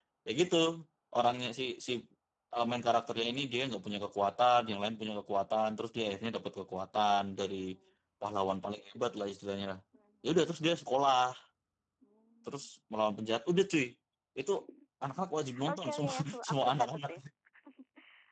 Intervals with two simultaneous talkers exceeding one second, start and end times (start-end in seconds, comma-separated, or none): 15.7-17.1